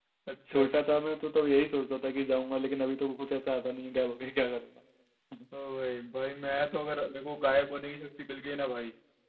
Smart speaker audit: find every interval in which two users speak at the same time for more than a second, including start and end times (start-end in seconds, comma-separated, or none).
none